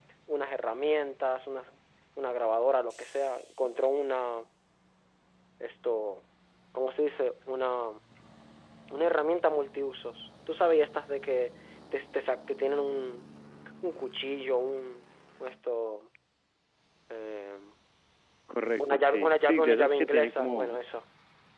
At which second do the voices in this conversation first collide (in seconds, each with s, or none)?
18.8 s